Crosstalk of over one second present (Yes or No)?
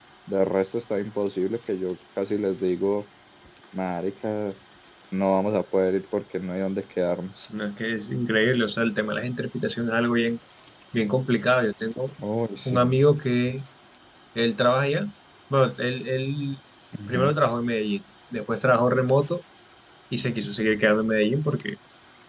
No